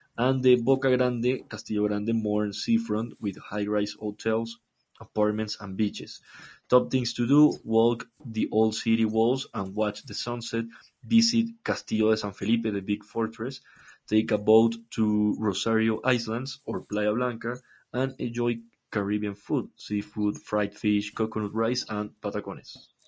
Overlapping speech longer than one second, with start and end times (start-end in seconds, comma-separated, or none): none